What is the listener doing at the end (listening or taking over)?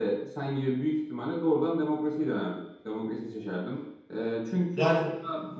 listening